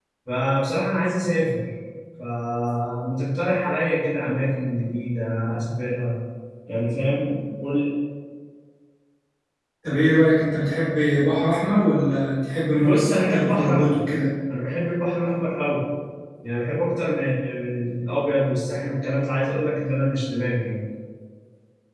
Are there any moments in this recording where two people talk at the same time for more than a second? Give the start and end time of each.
12.8-14.0

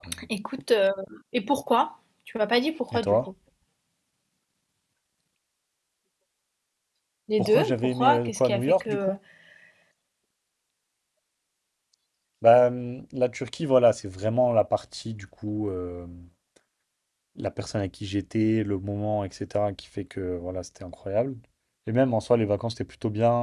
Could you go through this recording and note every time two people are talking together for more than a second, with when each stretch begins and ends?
7.4-9.2

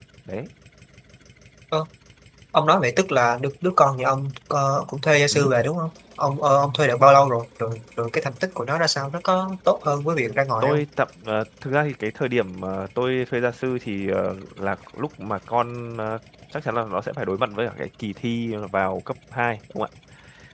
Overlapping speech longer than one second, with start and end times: none

